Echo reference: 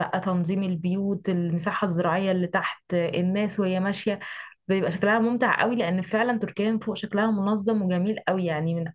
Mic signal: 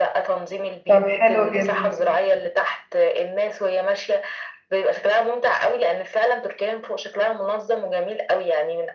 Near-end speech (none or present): present